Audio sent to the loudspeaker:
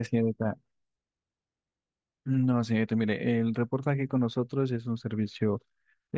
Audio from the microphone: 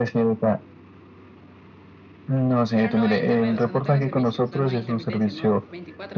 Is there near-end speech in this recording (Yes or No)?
Yes